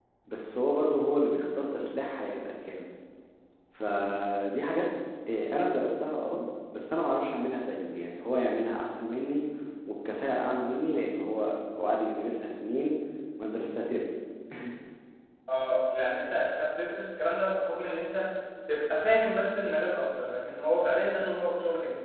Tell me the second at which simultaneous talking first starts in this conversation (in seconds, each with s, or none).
none